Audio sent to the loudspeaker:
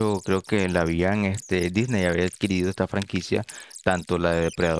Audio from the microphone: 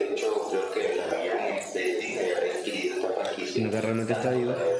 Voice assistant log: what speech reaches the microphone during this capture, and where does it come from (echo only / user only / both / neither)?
both